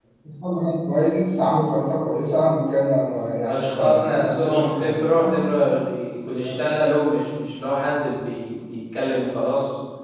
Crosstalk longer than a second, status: present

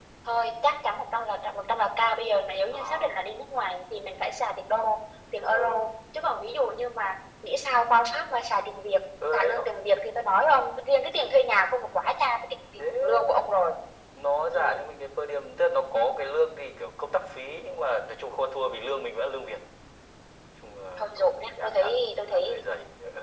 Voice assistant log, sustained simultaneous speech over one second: present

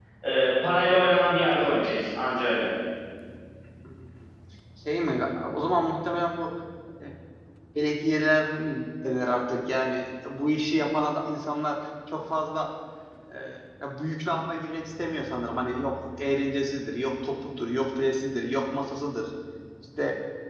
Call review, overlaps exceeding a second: none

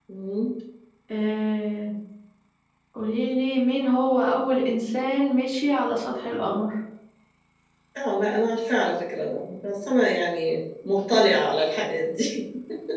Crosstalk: none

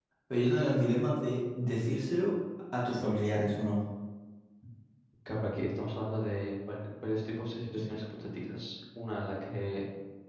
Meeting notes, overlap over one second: none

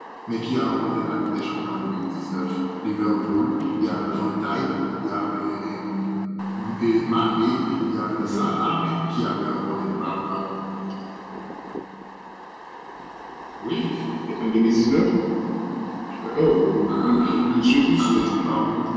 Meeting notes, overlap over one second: none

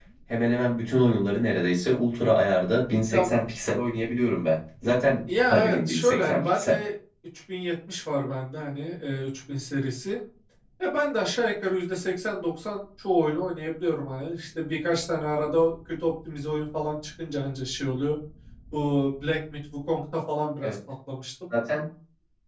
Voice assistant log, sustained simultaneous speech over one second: present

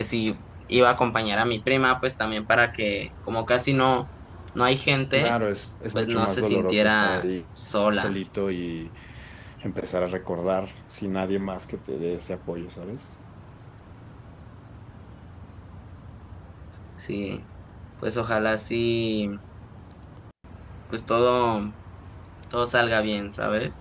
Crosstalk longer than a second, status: present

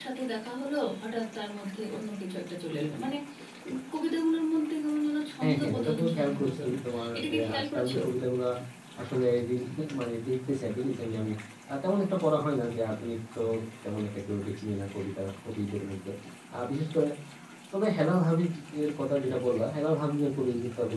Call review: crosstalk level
present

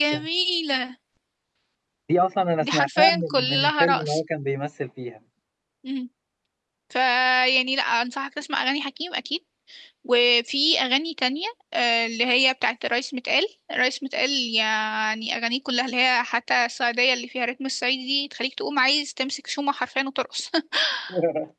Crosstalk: present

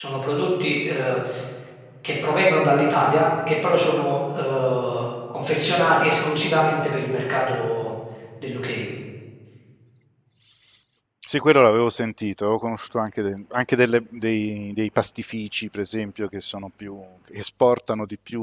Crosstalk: none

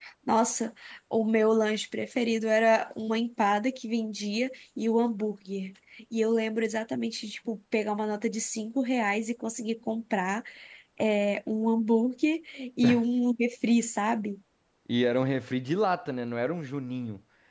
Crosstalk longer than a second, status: none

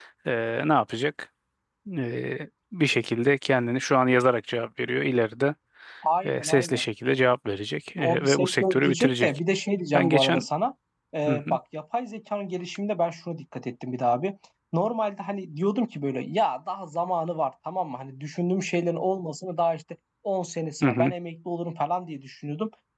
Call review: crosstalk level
present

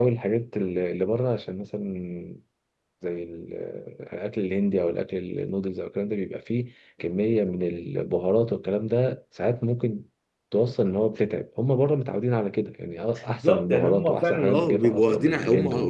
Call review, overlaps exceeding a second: present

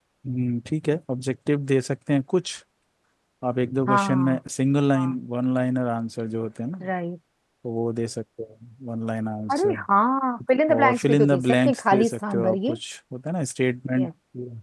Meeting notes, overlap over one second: present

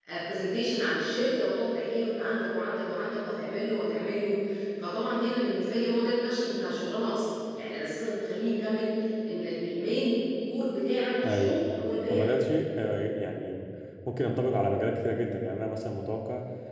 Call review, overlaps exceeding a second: none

